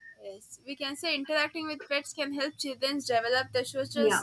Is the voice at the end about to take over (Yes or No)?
No